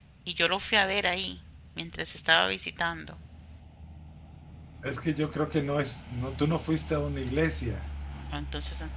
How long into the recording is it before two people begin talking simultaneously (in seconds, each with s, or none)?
none